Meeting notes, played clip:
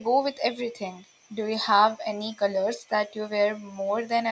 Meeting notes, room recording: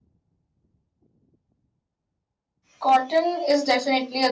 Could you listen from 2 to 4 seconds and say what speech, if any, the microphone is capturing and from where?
user only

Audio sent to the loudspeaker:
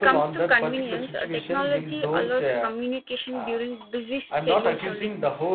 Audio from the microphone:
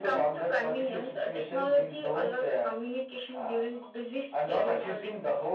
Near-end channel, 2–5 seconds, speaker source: echo only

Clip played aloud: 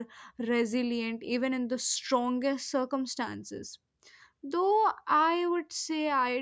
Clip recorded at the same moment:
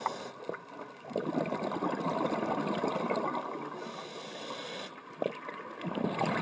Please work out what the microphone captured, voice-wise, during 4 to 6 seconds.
neither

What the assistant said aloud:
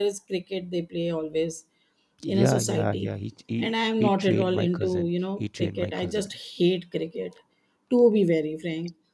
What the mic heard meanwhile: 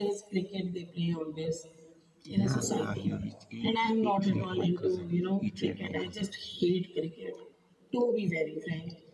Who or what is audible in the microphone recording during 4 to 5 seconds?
echo only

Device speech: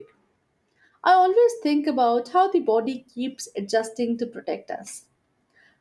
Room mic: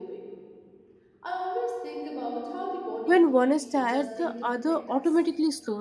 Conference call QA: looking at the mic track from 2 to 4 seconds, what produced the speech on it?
both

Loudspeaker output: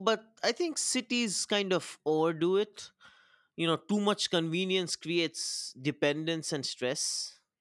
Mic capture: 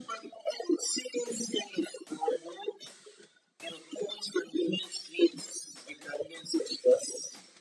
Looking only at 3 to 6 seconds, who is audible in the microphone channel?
echo only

